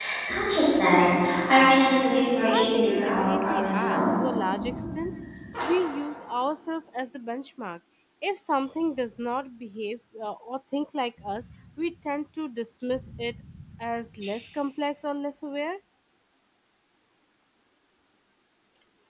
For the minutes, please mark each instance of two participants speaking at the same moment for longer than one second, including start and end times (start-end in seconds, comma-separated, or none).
2.5-4.0